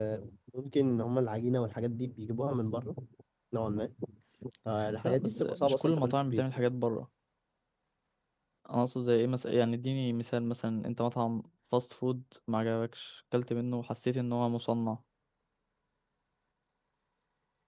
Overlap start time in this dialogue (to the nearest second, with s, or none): 5 s